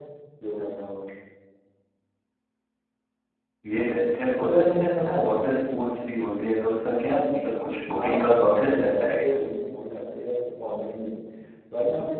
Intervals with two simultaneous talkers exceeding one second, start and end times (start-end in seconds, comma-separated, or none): 7.9-9.3